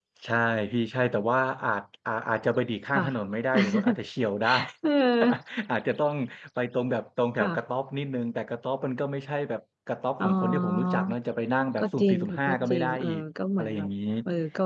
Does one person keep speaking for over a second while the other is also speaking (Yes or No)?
Yes